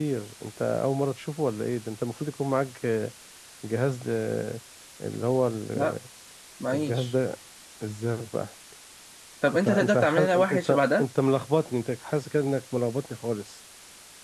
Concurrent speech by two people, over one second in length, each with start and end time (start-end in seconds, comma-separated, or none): 9.5-11.0